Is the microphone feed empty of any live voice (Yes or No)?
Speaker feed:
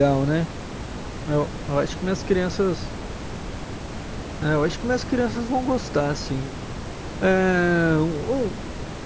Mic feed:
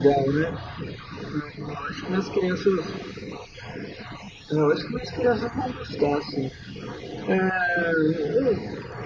Yes